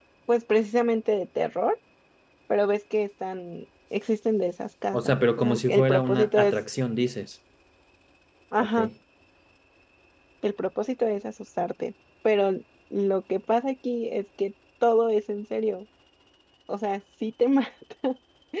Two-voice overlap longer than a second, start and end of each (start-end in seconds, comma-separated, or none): 4.9-6.6